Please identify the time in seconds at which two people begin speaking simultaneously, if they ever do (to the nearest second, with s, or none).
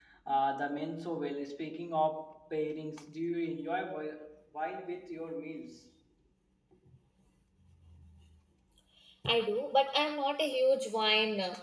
none